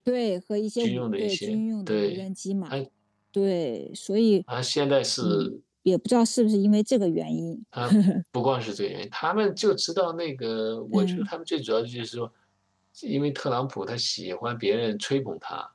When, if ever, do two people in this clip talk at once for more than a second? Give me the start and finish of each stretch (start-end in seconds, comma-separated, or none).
0.8-2.2